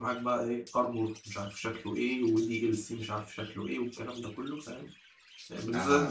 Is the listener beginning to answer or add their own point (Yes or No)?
Yes